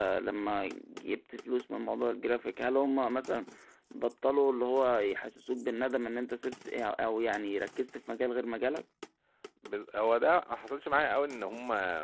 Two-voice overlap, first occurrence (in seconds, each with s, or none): none